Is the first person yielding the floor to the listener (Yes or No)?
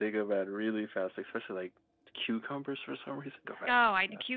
Yes